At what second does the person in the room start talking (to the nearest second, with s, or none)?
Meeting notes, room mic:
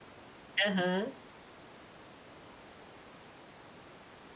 1 s